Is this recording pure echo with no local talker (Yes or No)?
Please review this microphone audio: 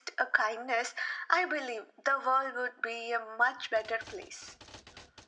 Yes